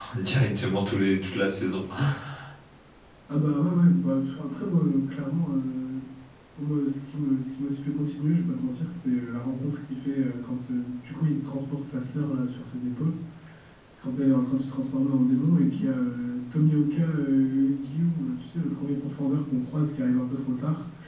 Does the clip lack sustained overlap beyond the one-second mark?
Yes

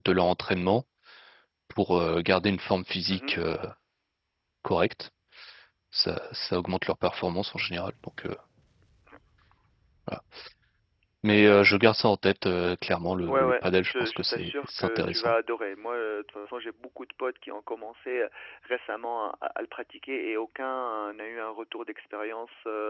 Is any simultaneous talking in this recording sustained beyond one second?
Yes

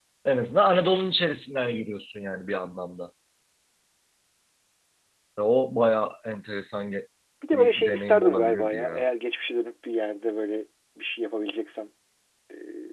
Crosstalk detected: Yes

